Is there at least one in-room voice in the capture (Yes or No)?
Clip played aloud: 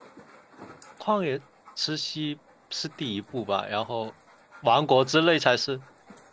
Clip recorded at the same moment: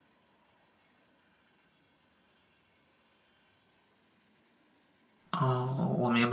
Yes